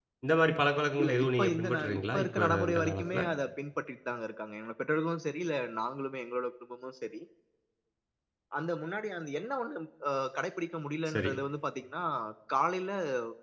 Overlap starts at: 1 s

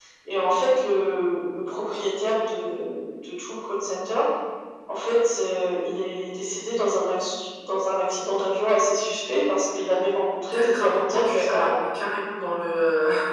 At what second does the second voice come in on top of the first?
11 s

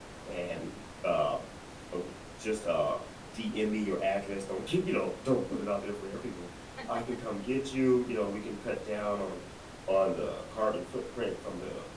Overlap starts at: none

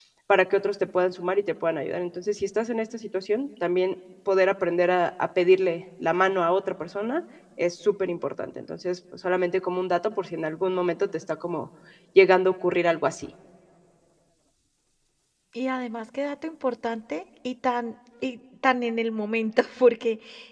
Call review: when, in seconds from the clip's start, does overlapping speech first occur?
none

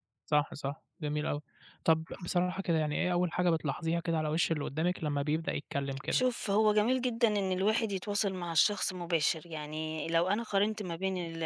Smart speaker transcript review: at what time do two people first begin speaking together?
none

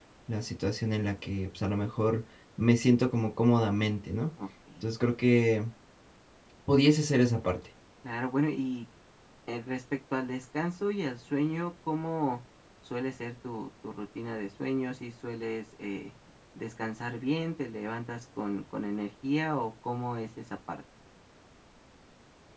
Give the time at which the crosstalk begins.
none

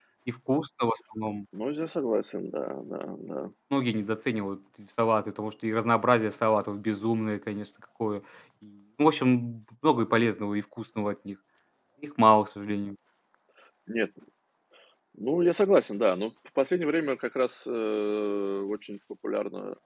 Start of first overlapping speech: none

